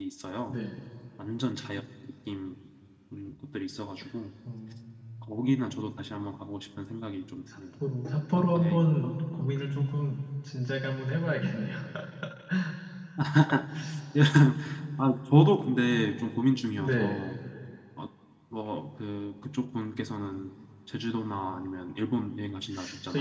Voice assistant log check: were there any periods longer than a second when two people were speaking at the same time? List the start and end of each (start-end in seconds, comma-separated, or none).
none